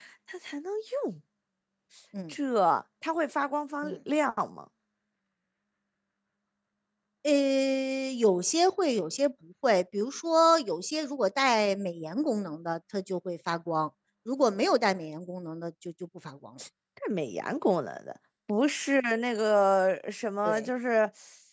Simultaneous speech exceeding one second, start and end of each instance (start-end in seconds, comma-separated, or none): none